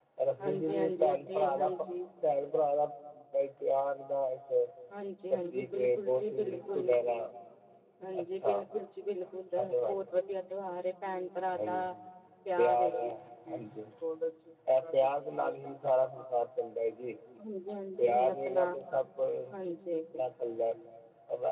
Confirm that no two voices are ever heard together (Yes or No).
No